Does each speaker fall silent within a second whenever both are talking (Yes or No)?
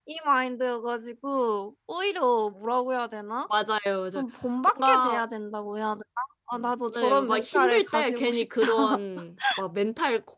No